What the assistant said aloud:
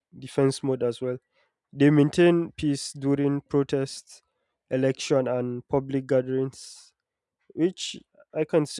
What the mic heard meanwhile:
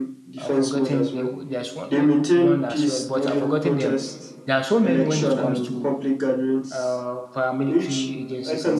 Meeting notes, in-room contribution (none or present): present